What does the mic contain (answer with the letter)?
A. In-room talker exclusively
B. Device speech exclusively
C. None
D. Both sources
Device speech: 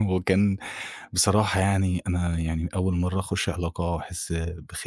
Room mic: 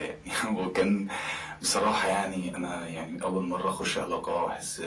B